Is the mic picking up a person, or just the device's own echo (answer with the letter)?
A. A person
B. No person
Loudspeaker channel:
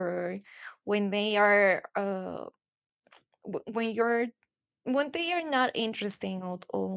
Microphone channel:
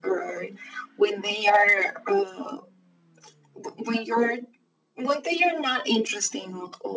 B